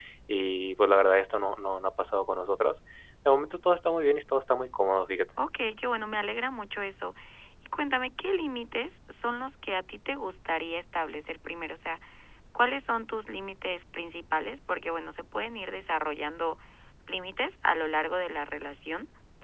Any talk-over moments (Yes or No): No